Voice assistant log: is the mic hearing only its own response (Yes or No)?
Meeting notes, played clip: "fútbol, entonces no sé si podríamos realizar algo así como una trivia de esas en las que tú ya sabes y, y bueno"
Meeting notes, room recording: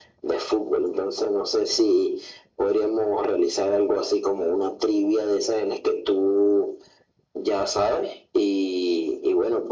Yes